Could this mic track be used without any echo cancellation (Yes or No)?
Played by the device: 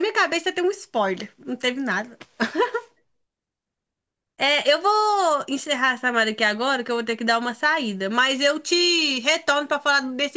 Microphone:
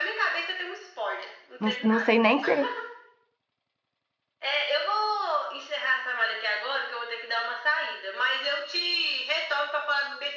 No